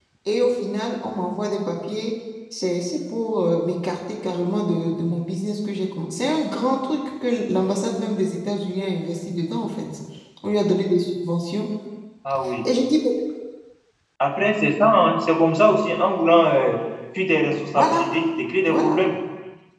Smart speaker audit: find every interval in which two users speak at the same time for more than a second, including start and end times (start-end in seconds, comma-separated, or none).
none